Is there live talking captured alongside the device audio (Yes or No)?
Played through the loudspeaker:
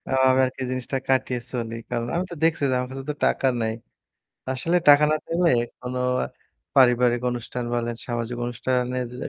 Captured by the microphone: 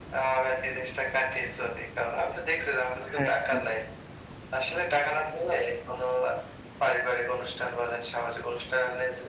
Yes